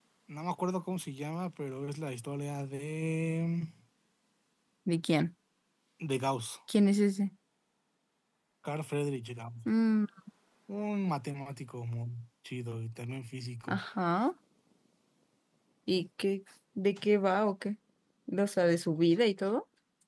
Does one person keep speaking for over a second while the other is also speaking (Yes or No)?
No